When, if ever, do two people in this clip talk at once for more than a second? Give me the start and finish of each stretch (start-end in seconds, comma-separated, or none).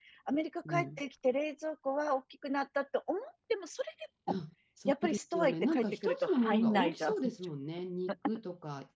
4.9-7.1